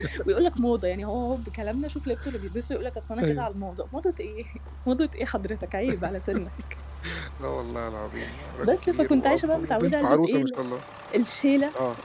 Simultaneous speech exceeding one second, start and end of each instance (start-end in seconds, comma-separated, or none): 8.6-10.6